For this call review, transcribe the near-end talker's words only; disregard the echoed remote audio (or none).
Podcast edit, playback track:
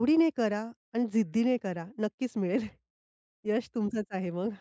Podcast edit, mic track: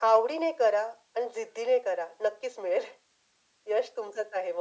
none